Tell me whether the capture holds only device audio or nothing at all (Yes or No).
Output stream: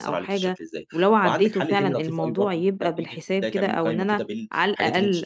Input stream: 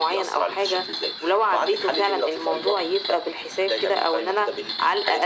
Yes